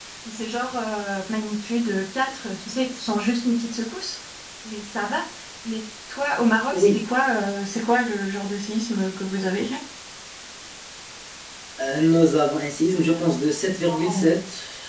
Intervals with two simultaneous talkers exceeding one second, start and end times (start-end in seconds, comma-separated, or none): none